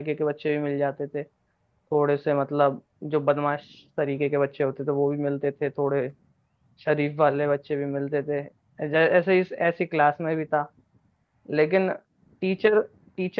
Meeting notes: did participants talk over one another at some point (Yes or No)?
No